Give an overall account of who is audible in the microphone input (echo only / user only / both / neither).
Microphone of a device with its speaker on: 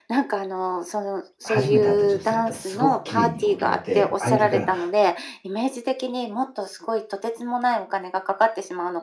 both